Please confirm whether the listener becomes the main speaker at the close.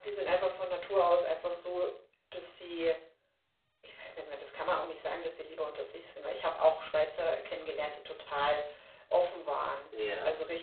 No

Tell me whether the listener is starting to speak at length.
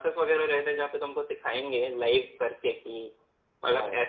No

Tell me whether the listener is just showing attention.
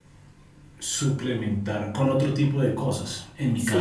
Yes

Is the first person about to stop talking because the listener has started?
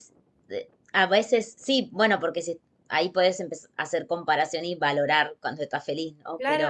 Yes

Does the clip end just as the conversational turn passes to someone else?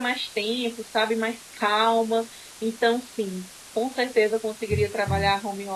No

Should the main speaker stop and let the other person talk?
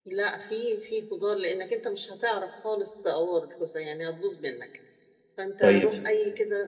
No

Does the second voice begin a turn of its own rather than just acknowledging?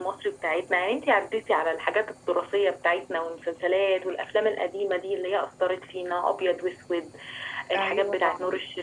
No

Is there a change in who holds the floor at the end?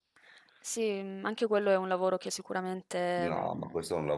Yes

